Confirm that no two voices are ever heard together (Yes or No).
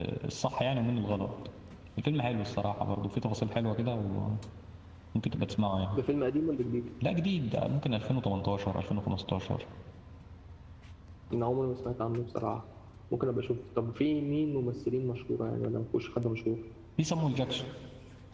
Yes